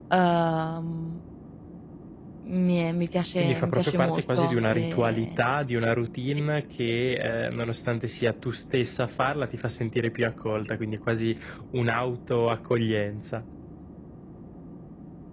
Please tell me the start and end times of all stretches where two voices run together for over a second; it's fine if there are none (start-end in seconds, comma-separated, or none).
3.4-5.4